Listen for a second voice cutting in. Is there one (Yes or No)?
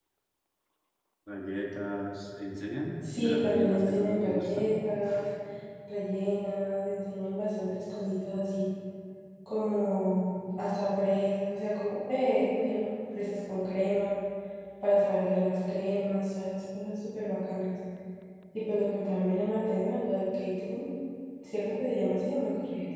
Yes